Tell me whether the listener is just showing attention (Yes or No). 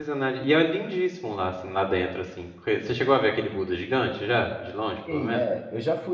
No